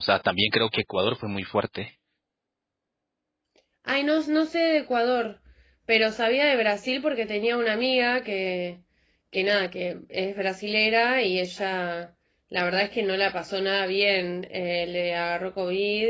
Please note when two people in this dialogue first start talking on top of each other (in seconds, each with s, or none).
none